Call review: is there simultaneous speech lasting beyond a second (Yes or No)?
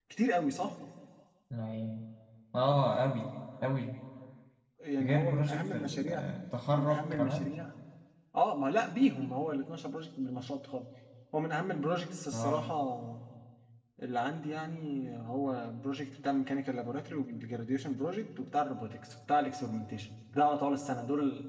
Yes